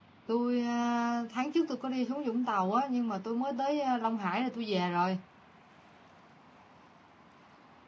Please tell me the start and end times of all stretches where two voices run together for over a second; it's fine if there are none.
none

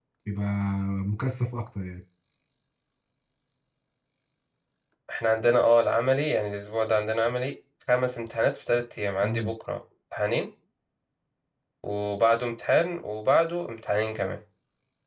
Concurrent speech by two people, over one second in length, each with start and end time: none

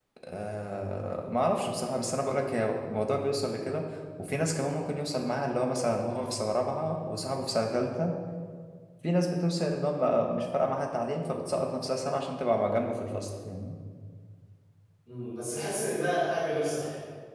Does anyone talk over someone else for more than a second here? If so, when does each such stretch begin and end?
none

